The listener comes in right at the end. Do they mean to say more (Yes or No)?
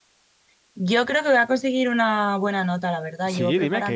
Yes